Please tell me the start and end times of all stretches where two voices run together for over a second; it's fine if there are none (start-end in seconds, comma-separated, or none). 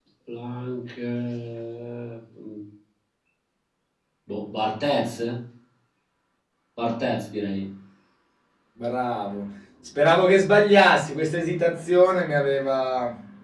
none